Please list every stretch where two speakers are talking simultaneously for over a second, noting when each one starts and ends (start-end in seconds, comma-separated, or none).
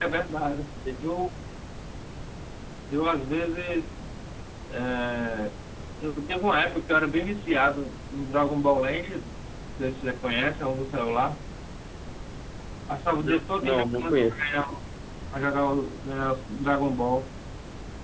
13.2-14.4